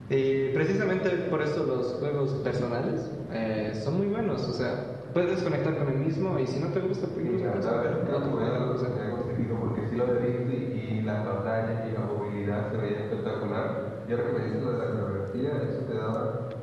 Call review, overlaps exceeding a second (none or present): present